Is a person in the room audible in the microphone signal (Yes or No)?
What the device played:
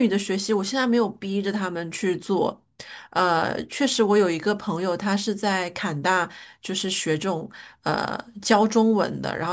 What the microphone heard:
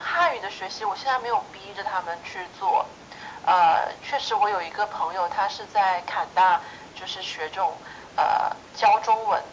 No